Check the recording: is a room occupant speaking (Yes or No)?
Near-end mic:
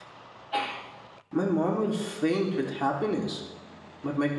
Yes